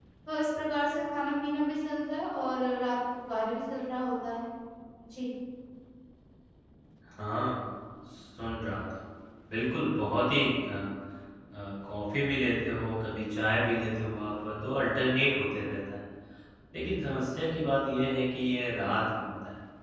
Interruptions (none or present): none